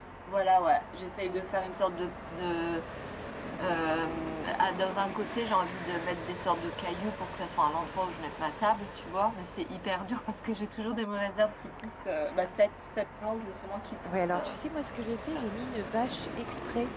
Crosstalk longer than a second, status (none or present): none